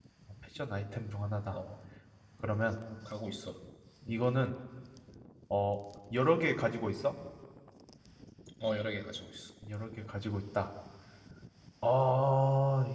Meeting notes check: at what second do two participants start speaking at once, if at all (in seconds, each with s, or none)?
none